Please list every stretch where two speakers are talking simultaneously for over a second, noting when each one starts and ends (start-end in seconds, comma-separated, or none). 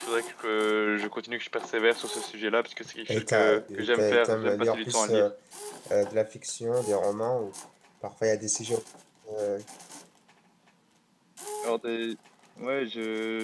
3.1-5.2